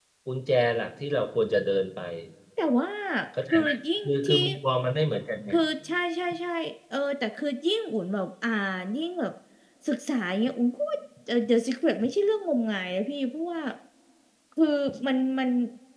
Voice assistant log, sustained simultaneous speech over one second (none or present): none